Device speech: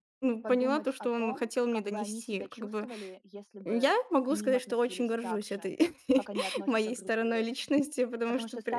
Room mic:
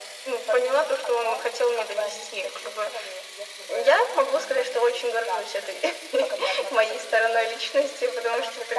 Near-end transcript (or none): none